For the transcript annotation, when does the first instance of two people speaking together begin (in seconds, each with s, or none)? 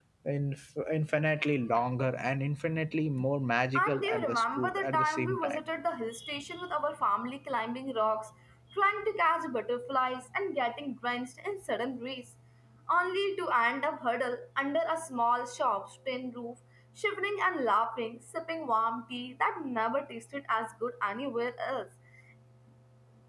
3.8 s